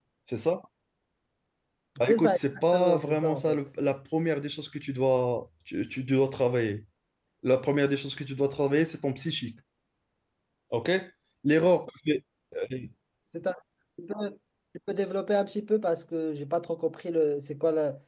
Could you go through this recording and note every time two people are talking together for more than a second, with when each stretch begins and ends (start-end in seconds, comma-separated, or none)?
2.1-3.6